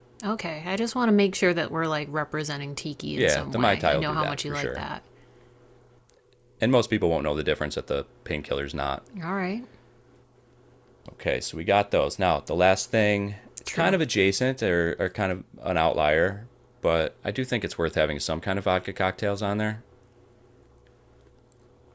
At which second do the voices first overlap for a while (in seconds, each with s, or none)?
3.2 s